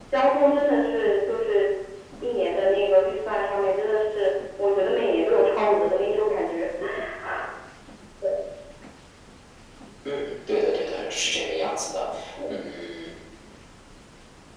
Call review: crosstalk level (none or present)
none